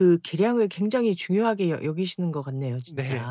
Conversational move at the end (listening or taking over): taking over